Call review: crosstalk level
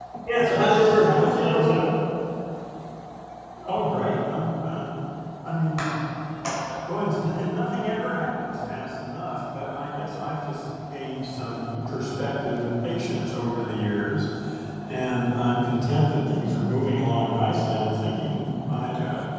present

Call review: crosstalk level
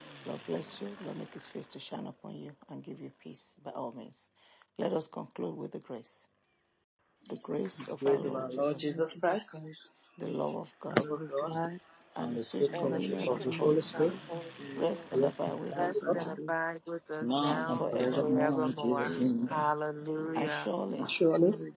present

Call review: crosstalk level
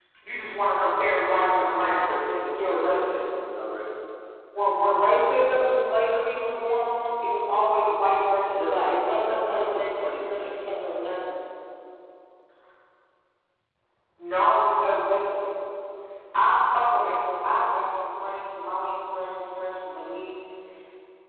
present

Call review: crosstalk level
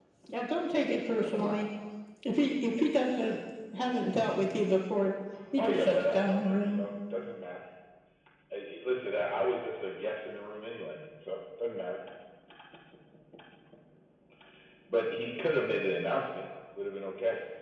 present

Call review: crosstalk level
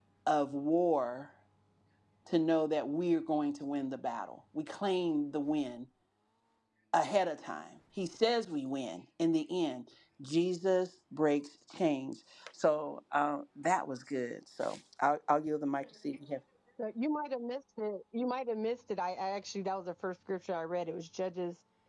none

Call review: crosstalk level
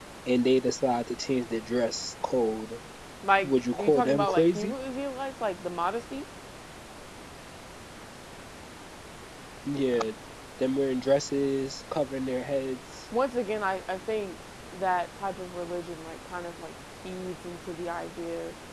present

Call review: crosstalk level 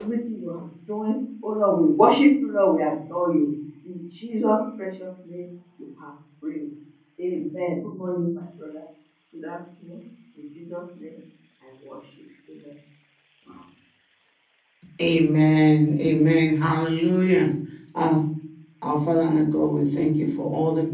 none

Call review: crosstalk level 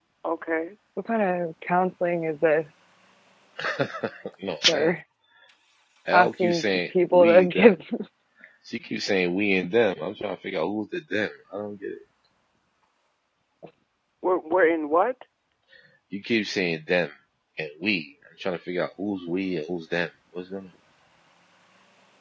present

